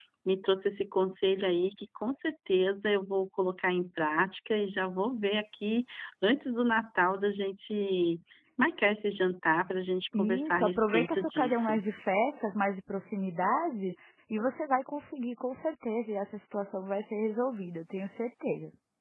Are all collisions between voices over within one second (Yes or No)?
No